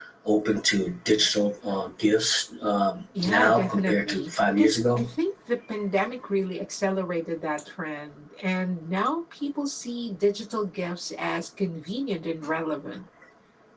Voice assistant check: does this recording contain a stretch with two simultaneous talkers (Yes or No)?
Yes